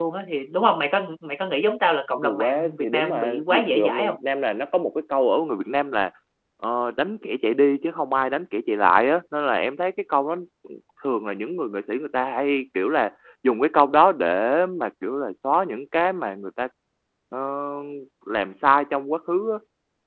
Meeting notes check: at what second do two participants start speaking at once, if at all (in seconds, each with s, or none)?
2.1 s